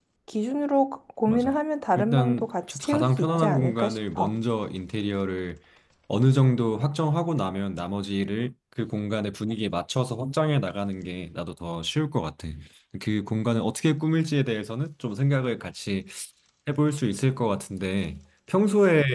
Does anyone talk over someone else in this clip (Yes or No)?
Yes